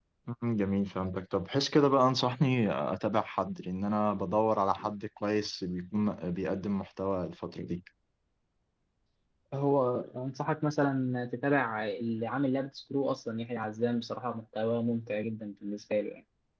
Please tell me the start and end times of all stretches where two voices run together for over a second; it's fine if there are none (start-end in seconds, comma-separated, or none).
none